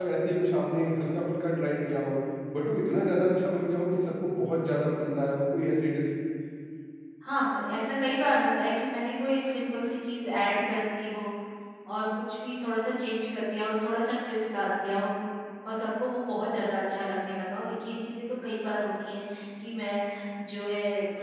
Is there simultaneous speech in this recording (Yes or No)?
No